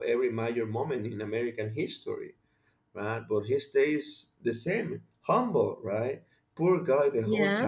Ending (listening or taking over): listening